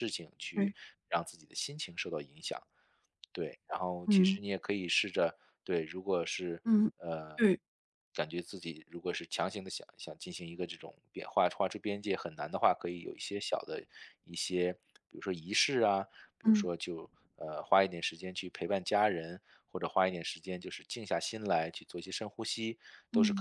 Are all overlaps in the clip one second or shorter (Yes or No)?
Yes